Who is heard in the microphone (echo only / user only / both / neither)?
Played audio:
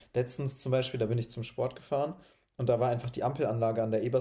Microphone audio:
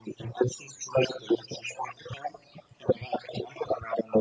echo only